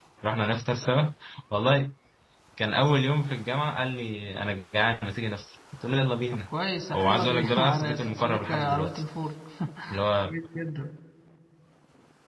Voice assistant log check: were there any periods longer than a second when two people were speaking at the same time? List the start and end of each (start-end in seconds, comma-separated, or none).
6.9-9.0